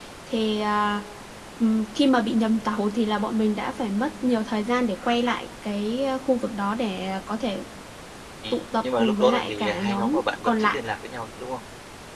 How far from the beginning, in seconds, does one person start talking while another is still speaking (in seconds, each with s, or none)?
8.5 s